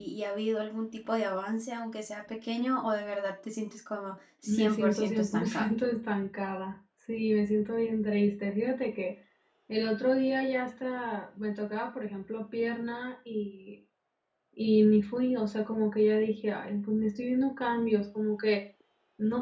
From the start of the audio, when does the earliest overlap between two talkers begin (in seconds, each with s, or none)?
4.4 s